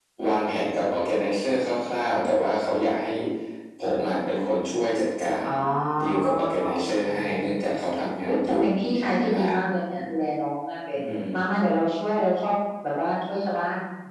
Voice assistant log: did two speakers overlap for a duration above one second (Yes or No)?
Yes